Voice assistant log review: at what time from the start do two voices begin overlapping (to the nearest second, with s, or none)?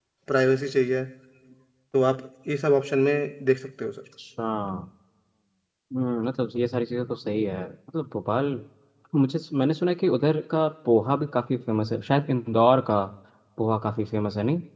none